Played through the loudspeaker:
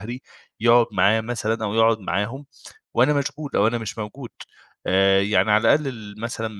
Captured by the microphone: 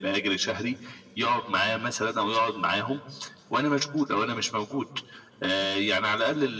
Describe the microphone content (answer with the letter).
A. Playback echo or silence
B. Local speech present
A